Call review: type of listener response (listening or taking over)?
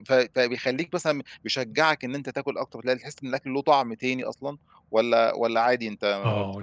taking over